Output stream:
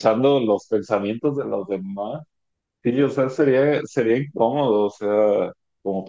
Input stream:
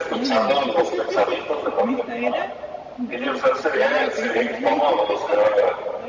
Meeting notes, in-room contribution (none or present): present